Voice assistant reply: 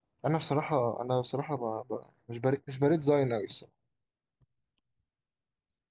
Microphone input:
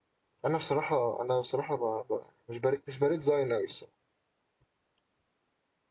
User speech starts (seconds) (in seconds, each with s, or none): none